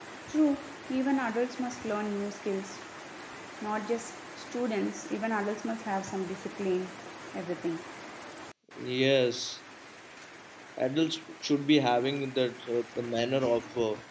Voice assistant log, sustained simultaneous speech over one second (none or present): none